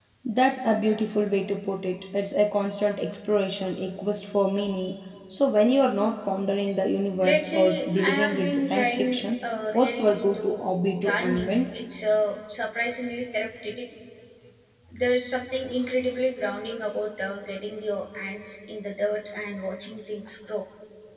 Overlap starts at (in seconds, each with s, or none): 7.2 s